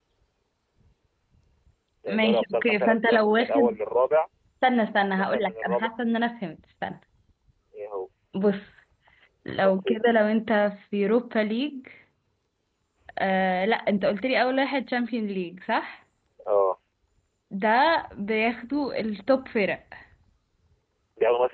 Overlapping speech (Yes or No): Yes